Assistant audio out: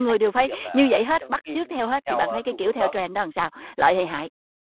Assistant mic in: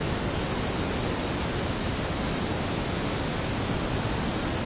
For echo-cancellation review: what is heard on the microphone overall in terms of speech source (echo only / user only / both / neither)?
neither